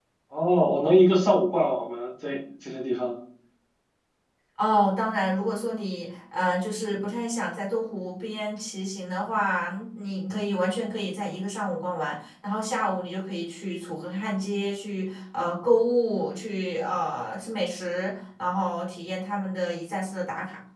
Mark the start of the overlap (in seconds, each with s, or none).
none